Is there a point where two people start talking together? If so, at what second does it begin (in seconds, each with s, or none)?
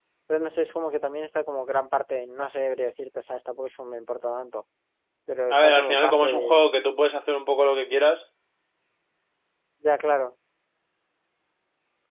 5.5 s